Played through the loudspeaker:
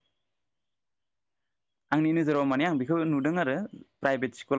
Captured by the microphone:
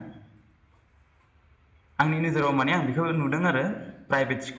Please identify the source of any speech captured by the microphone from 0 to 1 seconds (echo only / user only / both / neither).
neither